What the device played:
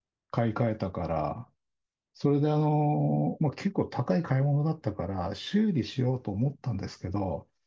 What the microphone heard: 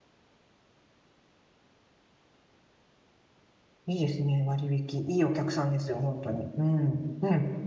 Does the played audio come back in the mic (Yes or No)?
No